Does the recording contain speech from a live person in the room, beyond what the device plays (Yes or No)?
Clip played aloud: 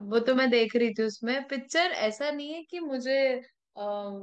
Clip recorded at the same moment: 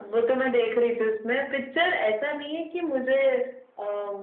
No